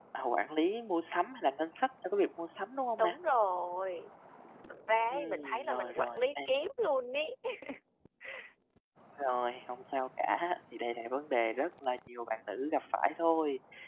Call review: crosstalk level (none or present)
present